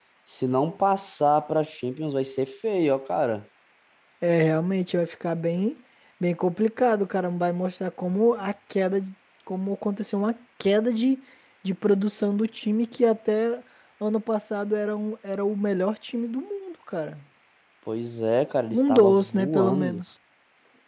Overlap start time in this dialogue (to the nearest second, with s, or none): 19 s